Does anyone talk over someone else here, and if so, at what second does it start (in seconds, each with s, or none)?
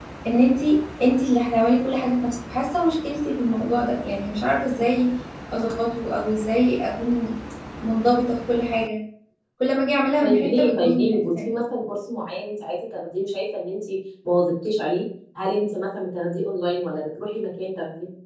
10.2 s